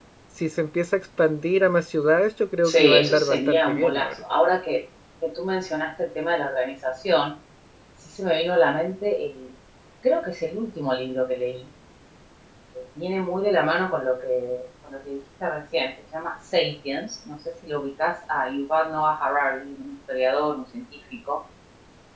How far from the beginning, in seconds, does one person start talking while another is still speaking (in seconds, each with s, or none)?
2.6 s